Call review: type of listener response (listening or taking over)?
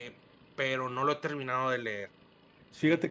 taking over